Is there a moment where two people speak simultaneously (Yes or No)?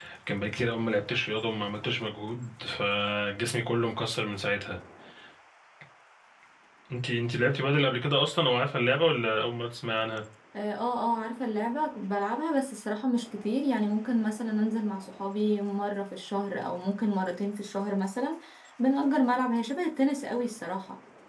No